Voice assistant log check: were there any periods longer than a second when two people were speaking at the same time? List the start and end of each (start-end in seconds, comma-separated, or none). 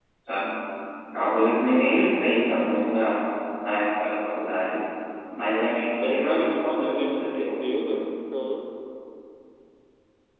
5.7-8.0